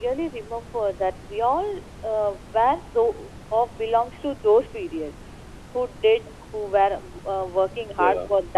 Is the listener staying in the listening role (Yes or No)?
Yes